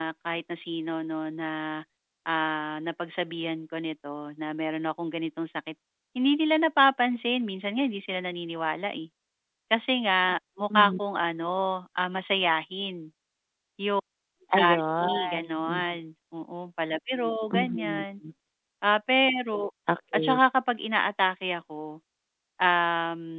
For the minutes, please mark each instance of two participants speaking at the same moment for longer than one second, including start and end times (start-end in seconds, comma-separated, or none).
14.5-15.8